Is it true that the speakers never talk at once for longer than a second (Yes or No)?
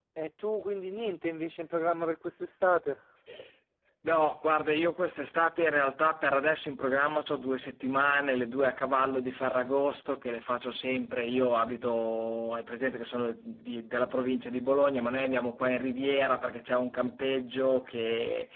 Yes